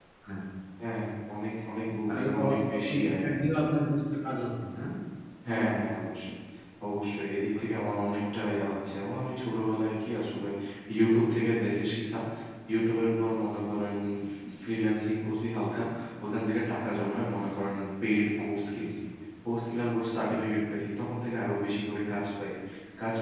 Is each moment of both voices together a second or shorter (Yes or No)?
No